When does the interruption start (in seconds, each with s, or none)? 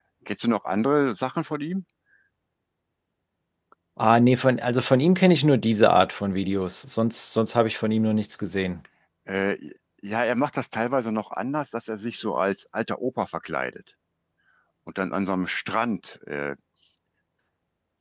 none